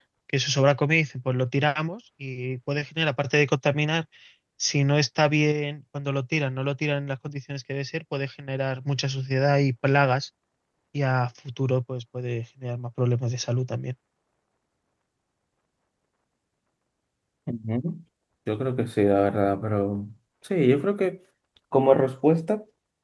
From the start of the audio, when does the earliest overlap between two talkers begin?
none

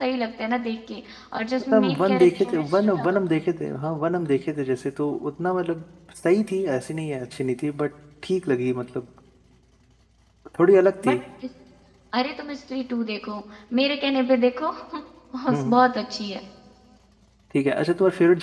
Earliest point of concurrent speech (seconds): 1.7 s

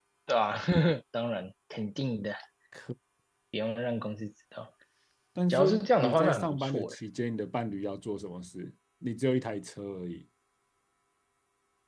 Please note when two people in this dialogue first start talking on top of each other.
5.5 s

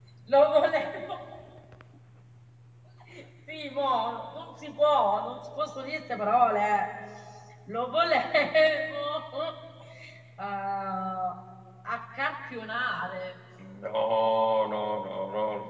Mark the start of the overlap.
none

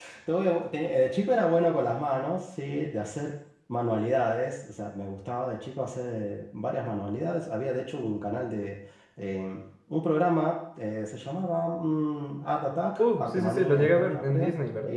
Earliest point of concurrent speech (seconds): 13.0 s

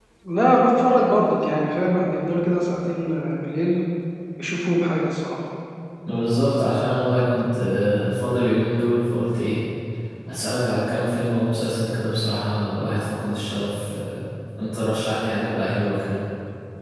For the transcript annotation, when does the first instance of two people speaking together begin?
none

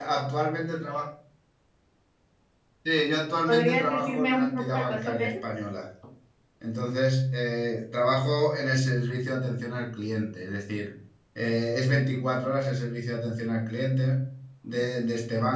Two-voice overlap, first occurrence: 3.5 s

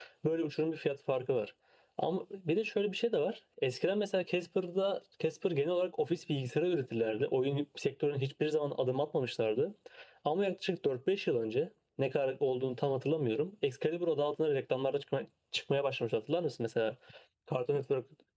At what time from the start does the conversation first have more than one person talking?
none

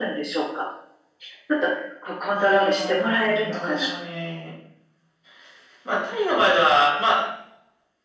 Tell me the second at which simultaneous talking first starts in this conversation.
2.3 s

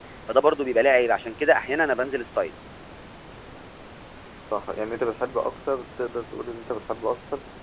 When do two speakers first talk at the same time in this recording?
none

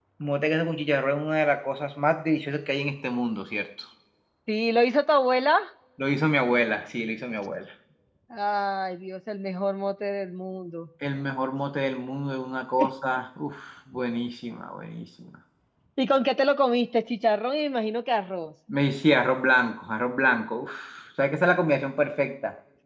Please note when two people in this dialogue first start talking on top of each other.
none

